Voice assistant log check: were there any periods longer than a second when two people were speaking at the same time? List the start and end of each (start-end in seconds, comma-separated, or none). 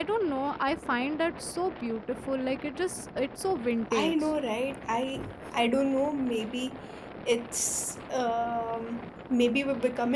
none